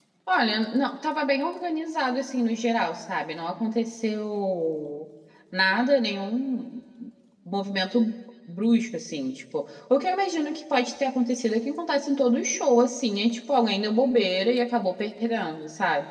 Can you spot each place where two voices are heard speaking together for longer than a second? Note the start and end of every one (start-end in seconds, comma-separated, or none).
none